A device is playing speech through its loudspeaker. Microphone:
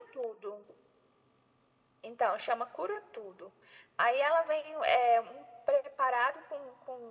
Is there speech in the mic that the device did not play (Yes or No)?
No